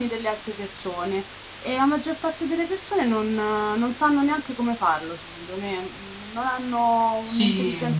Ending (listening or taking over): taking over